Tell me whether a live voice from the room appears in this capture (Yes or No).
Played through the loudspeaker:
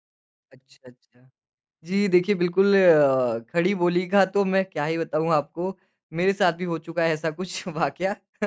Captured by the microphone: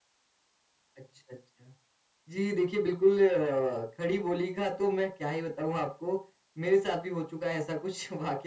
No